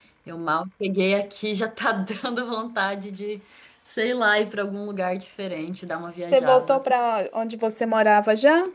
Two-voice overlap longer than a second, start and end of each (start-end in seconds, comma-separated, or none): none